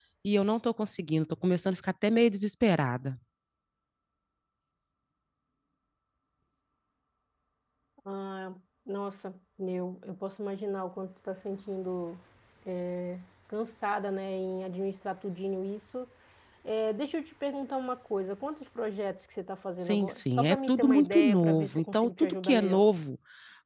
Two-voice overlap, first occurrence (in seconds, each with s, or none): 19.8 s